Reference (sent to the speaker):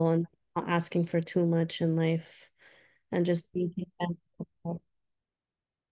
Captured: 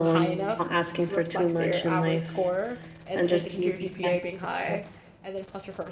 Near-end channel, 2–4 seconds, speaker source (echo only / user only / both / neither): both